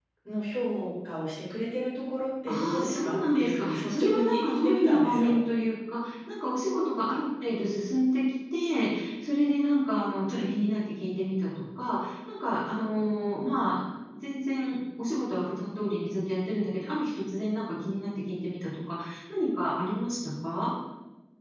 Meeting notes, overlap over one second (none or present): present